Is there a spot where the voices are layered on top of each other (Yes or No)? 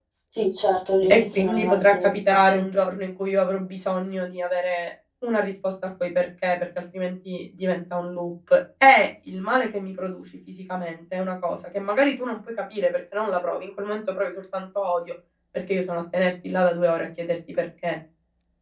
Yes